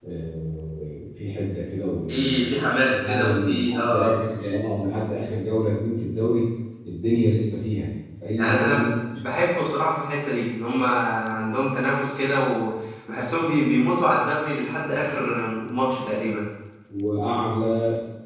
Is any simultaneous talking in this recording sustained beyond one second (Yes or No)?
Yes